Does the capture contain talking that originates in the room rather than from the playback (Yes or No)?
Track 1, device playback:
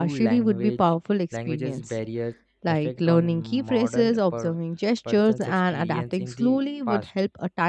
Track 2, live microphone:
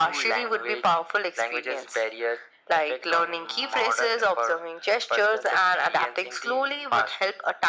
No